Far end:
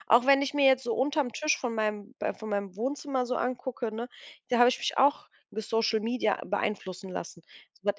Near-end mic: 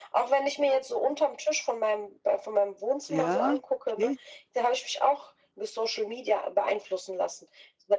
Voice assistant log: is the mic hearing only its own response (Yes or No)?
No